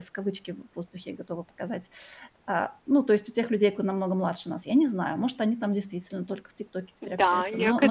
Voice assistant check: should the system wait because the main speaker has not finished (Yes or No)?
No